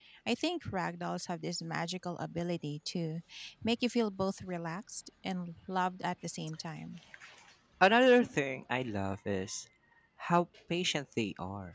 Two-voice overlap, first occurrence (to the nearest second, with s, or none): none